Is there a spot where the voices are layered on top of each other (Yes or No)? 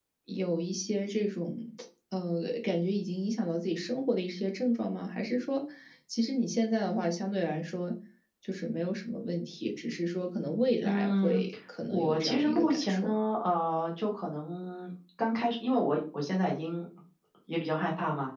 Yes